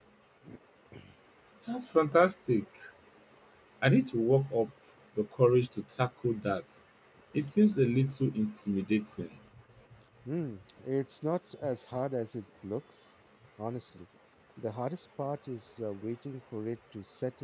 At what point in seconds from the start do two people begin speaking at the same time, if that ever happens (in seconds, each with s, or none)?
none